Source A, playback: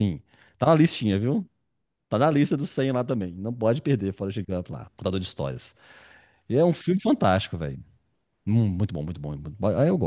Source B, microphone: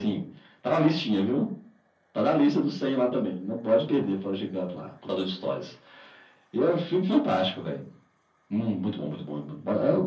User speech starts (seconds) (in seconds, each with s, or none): none